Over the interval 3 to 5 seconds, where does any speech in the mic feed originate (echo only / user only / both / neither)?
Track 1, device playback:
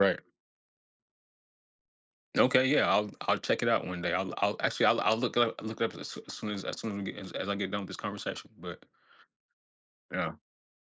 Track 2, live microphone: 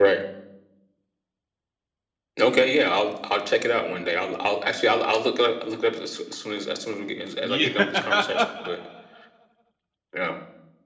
echo only